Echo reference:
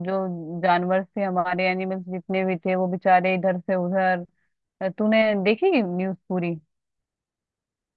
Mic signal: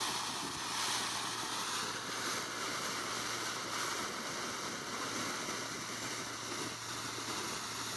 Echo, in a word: none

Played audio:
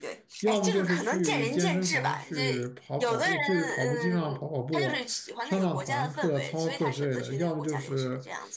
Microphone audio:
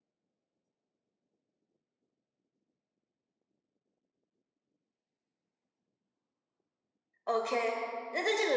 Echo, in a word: none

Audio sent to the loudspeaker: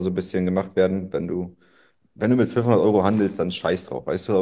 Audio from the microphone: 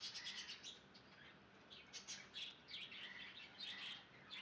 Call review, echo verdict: none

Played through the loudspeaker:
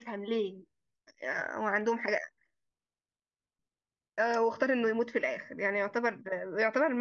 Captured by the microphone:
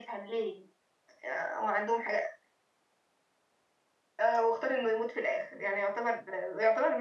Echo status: present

